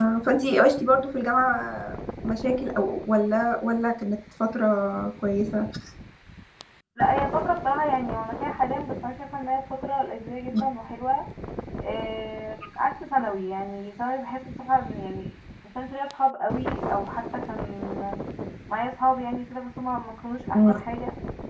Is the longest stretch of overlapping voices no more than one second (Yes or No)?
Yes